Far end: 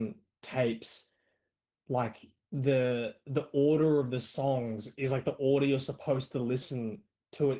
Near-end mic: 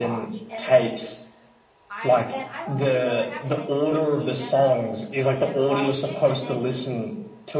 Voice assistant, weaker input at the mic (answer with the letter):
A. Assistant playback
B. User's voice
B